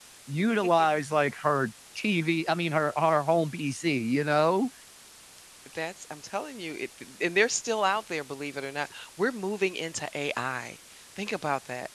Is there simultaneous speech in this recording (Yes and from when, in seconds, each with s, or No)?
No